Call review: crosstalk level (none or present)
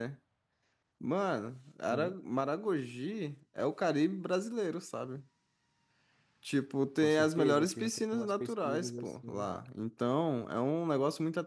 present